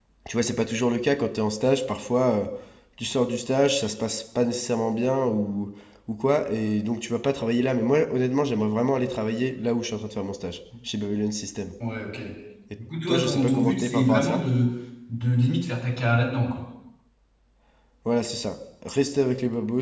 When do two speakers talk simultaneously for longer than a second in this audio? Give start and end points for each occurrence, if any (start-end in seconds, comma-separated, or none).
13.1-14.4